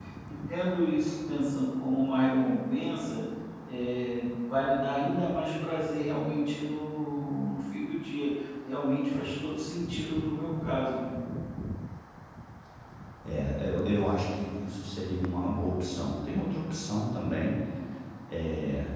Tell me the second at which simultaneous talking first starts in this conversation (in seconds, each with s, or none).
none